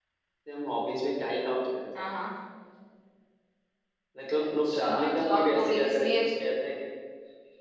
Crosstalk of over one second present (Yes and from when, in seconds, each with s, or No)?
Yes, from 4.6 s